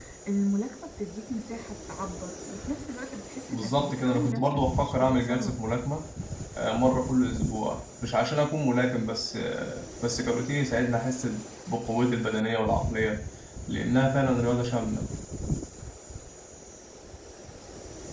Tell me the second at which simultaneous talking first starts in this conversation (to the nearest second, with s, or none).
3 s